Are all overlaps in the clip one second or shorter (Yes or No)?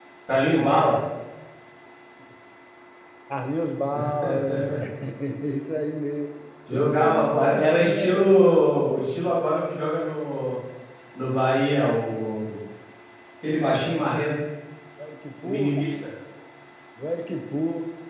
No